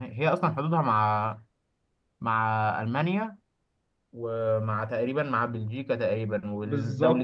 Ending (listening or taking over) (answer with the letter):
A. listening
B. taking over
A